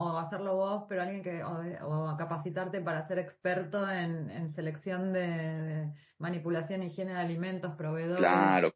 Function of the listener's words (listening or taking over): taking over